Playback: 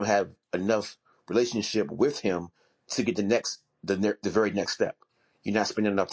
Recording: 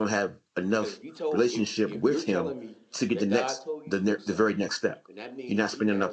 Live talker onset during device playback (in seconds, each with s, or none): 0.7 s